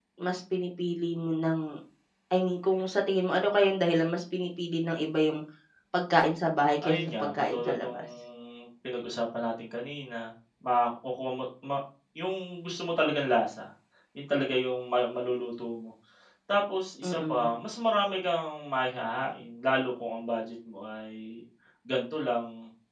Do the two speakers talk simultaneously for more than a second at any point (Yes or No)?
Yes